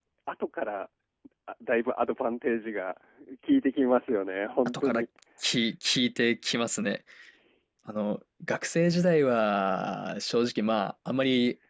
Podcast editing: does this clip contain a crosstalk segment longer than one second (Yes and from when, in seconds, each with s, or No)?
No